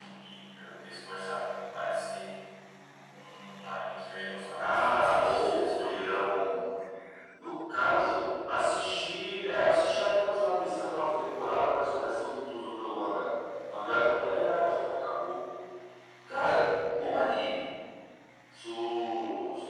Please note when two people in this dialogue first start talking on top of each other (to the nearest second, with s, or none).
5 s